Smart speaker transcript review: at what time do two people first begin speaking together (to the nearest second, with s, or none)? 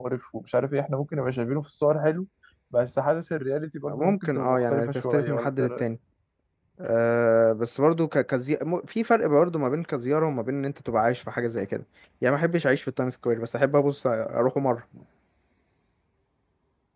4 s